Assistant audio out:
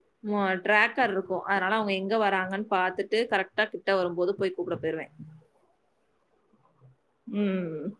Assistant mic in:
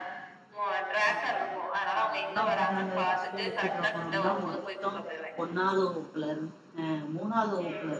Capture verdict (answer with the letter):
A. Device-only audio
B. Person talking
B